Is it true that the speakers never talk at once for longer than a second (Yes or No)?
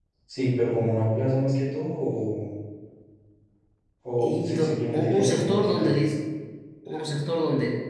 No